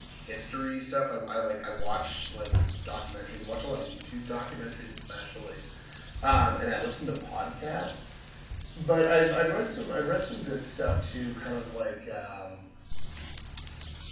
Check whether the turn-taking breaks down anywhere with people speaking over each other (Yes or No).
No